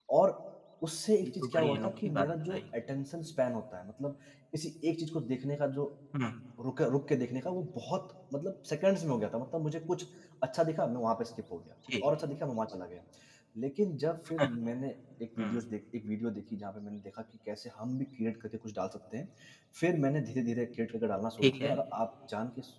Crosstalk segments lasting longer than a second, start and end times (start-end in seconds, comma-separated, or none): 1.2-2.6